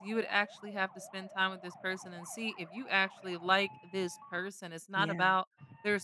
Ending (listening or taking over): listening